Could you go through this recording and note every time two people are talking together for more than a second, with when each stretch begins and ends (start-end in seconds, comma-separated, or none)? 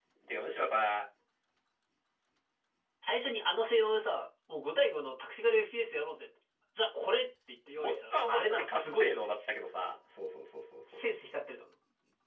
7.8-9.2